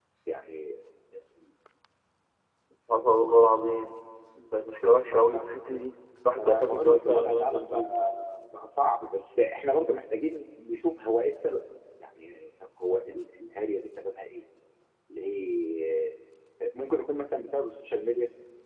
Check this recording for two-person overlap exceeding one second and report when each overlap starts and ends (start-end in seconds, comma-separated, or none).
6.4-7.9